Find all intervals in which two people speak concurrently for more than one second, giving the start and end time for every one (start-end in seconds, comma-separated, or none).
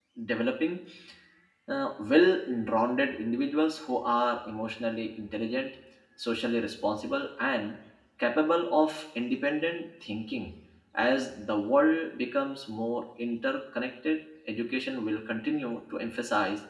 none